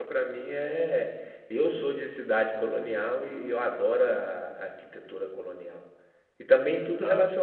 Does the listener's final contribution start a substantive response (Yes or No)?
No